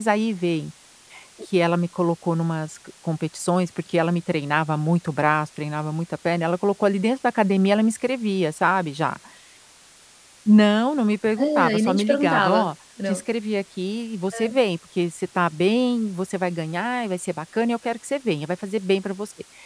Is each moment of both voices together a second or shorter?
No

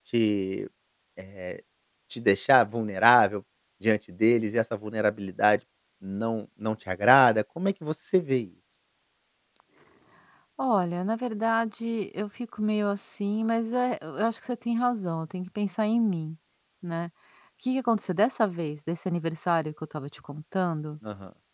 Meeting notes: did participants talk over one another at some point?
No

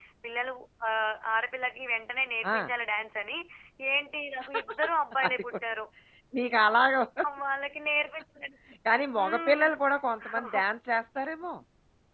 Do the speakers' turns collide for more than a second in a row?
No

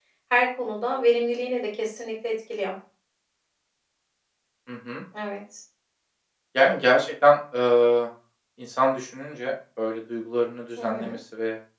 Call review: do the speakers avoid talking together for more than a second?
Yes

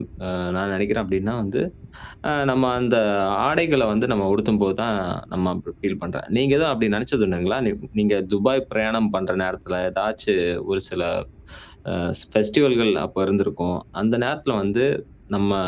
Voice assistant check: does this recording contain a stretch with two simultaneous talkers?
No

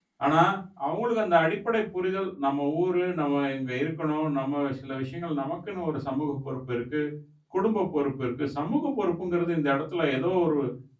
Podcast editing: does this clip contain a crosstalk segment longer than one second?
No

